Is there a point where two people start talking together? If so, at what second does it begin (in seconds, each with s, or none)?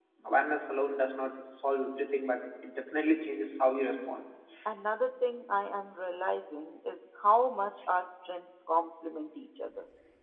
none